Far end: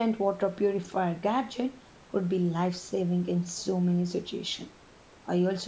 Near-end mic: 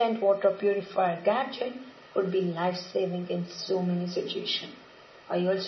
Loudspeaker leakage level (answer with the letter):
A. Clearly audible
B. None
A